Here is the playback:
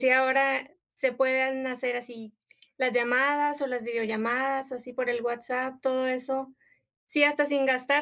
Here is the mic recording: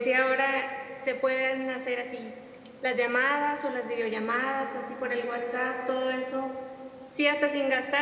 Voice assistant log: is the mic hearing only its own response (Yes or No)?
Yes